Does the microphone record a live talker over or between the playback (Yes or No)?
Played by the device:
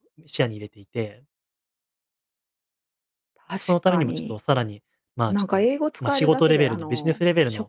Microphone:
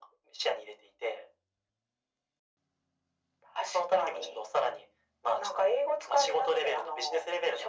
No